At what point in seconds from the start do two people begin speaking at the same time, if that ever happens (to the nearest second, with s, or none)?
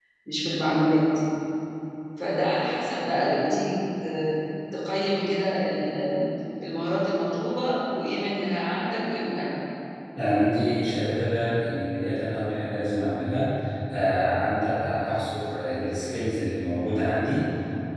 none